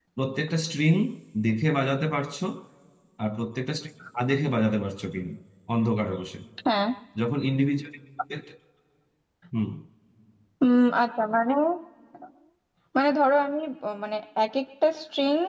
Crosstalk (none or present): none